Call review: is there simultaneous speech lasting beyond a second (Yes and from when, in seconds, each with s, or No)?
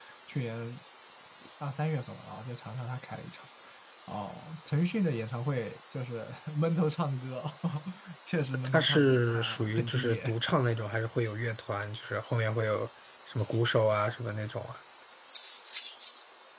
Yes, from 8.6 s